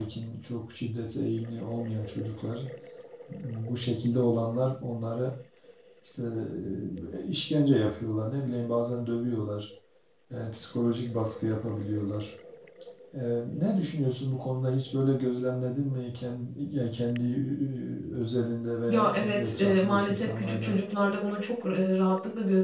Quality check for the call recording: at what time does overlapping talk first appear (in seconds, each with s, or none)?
18.9 s